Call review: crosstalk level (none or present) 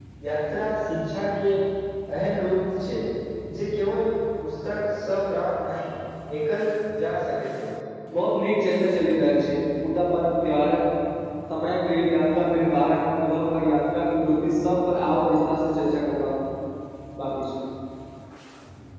none